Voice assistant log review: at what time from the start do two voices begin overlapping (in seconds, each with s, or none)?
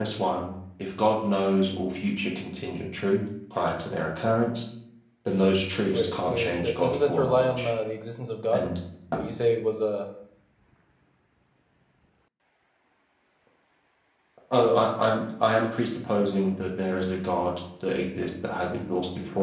5.9 s